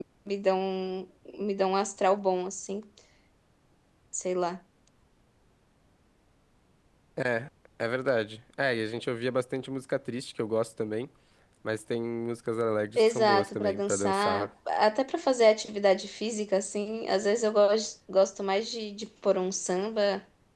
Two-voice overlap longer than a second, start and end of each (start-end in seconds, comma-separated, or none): 13.0-14.5